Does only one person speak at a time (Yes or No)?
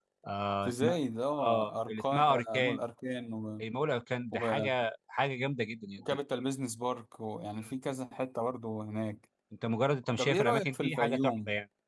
No